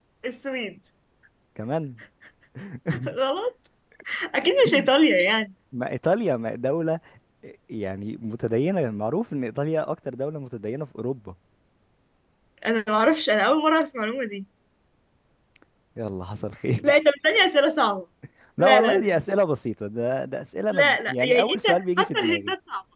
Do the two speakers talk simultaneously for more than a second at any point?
Yes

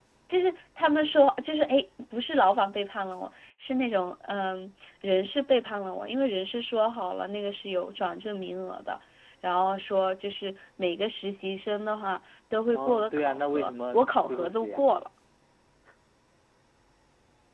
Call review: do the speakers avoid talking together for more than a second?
No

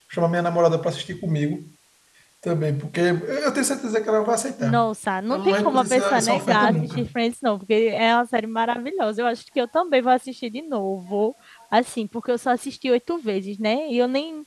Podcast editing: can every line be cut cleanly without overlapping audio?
No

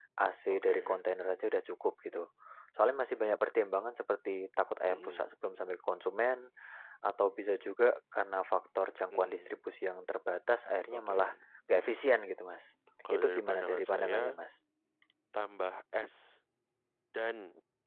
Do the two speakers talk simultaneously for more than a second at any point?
Yes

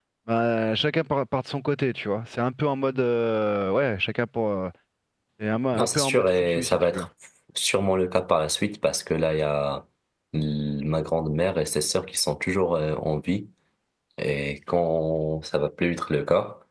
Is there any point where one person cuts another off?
Yes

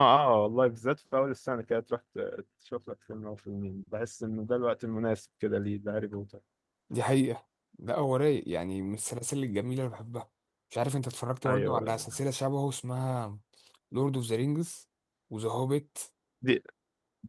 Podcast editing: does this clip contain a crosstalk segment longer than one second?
No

